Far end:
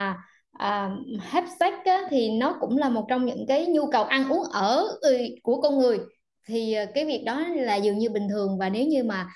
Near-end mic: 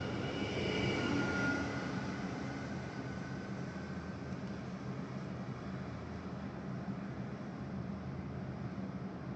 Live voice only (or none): none